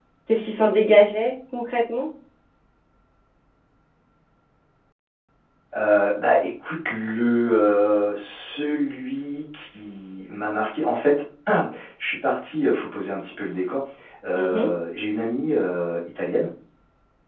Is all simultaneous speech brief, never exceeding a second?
Yes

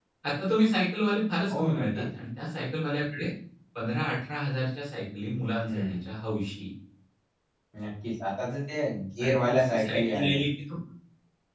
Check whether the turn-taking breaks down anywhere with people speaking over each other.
Yes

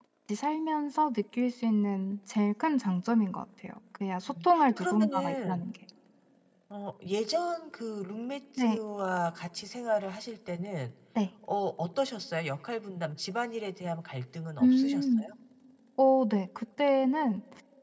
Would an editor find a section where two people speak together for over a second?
Yes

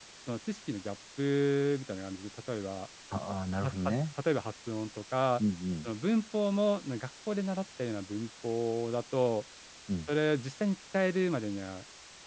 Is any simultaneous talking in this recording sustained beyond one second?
No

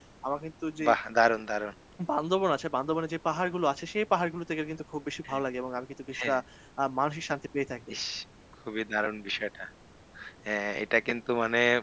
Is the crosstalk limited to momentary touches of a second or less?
Yes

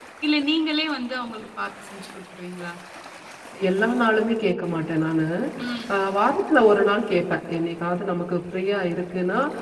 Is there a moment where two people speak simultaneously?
No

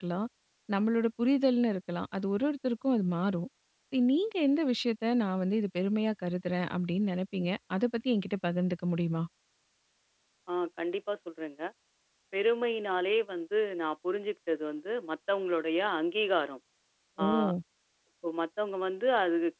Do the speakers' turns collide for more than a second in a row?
No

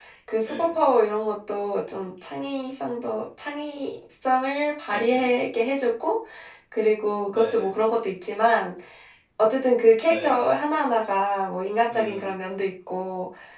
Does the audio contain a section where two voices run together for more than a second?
No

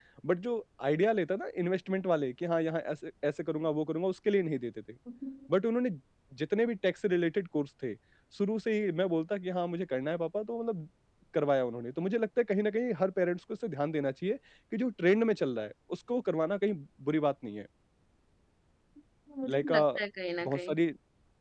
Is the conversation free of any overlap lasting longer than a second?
Yes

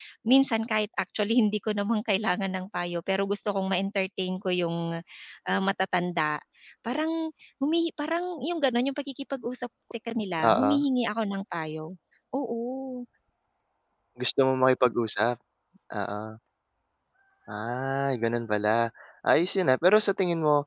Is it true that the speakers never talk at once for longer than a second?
Yes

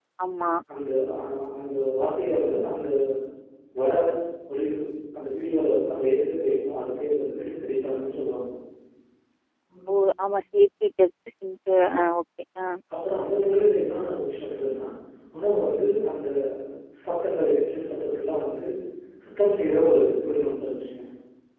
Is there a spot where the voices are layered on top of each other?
No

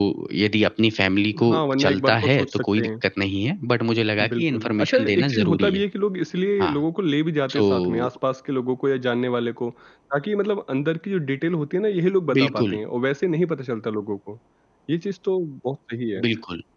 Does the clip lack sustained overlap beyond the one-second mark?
No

